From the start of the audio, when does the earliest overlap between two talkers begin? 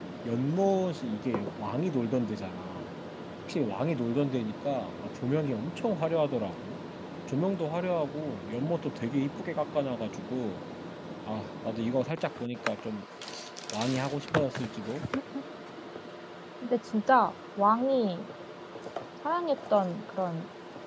none

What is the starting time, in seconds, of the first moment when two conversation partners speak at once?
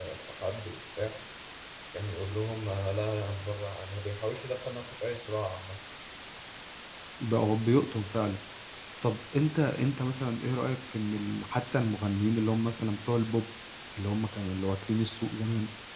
none

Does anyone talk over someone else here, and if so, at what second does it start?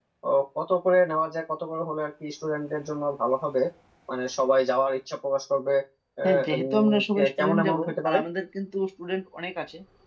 6.2 s

